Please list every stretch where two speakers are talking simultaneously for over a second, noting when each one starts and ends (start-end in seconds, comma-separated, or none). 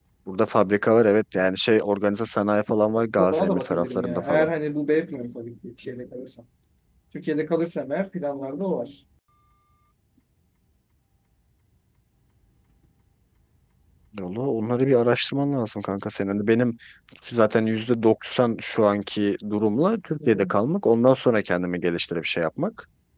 3.2-4.5